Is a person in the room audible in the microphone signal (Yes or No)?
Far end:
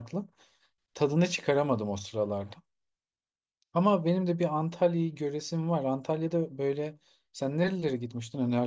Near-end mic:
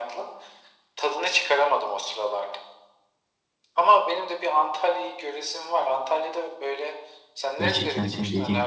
Yes